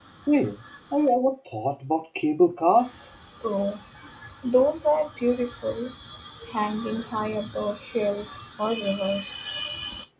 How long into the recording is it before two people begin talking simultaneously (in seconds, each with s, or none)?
none